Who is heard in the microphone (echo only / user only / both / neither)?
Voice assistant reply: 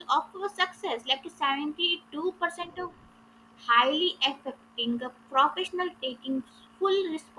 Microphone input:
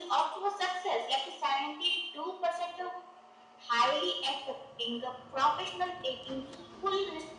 echo only